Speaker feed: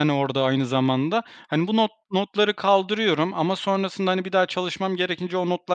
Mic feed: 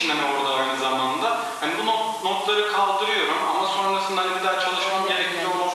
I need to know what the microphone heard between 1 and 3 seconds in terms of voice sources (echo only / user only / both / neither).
echo only